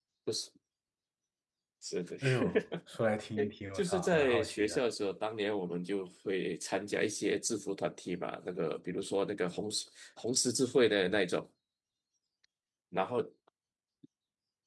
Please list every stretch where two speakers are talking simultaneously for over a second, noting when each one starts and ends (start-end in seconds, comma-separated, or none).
3.4-4.8